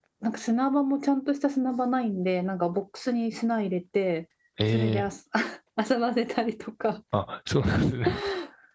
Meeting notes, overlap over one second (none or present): none